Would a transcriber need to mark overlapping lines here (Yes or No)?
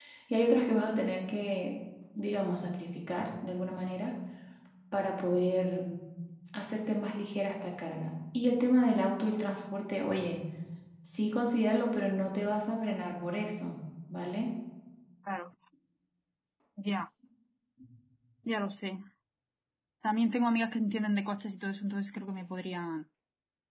No